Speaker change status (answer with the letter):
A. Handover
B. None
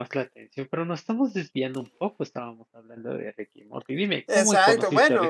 A